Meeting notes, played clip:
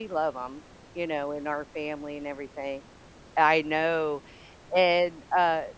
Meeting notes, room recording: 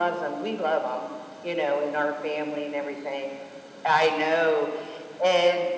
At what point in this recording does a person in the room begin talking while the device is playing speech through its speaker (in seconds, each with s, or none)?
none